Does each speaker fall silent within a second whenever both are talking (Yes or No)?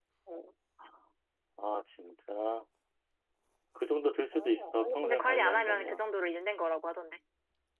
No